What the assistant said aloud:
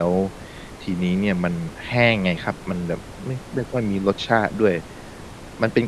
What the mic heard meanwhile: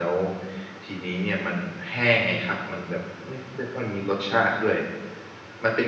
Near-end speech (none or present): none